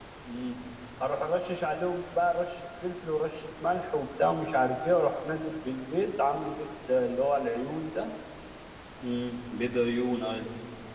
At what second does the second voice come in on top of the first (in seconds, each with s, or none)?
none